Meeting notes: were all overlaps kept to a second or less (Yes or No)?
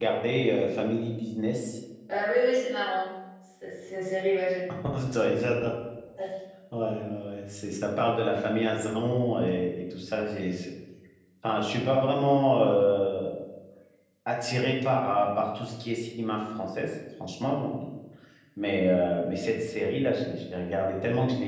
Yes